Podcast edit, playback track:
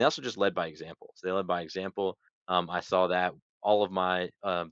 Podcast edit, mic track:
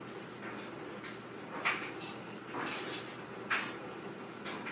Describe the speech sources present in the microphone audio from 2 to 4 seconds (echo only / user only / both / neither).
neither